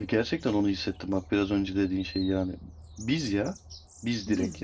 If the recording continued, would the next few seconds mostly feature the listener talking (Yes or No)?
Yes